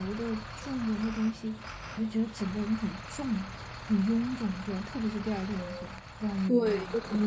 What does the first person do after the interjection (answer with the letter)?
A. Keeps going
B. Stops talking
B